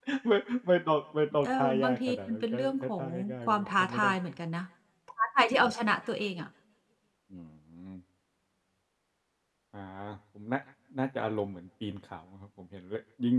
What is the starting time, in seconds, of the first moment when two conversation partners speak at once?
1 s

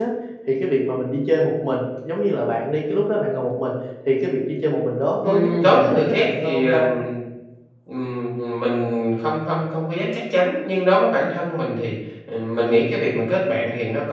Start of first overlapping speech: 5 s

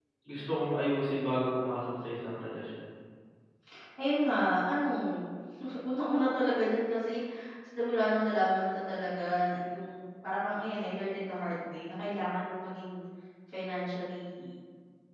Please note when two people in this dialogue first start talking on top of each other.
none

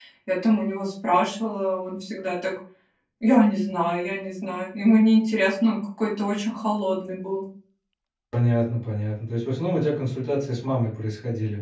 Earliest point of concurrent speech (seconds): none

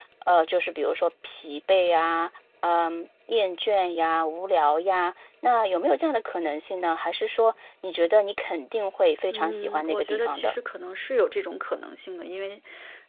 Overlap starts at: 9 s

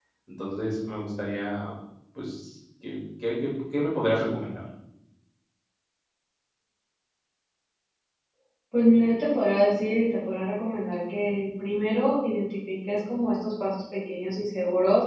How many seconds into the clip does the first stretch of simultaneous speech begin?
none

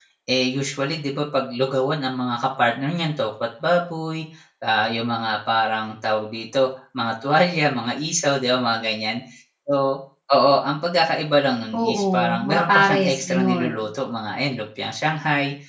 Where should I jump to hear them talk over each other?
12 s

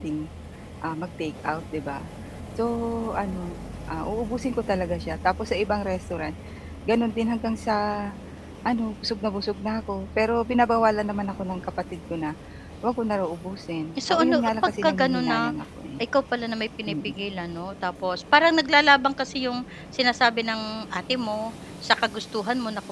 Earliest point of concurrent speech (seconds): 14 s

